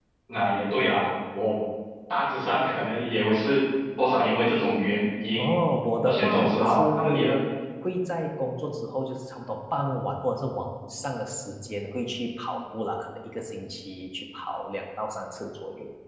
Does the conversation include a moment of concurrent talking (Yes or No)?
Yes